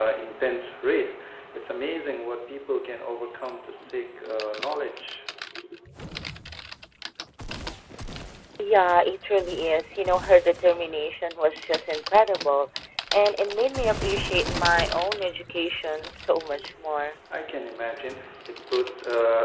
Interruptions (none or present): none